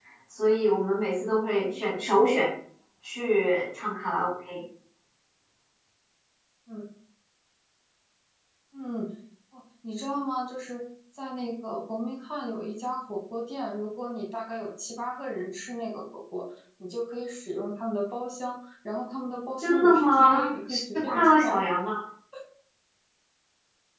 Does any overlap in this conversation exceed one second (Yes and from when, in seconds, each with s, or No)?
Yes, from 19.6 s